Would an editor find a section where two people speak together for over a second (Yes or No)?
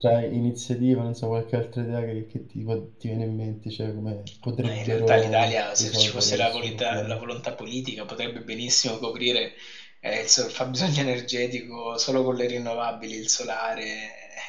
Yes